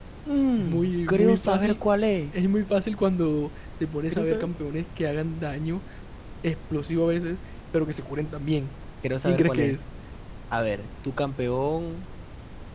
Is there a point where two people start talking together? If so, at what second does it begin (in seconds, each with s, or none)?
0.6 s